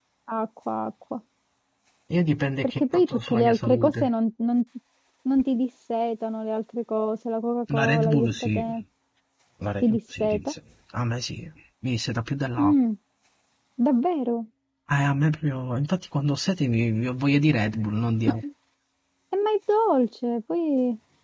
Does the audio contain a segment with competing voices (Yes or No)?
Yes